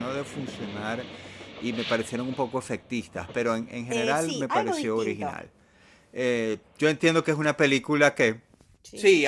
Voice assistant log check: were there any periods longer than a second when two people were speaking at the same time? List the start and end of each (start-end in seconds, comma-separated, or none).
3.9-5.3